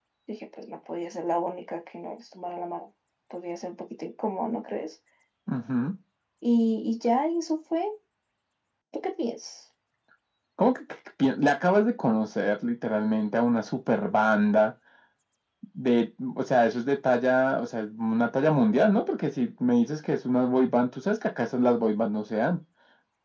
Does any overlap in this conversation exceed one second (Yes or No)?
No